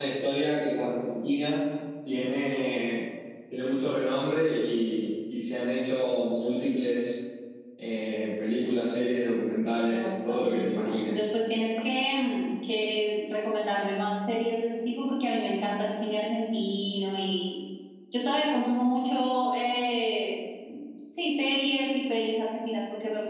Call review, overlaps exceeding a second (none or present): present